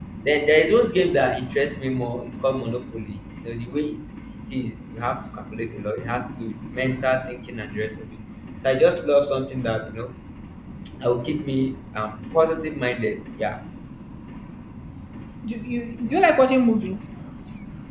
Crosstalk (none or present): none